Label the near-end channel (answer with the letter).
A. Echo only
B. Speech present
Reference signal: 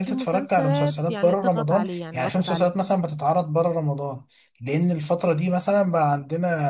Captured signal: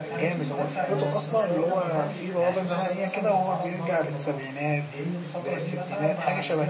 B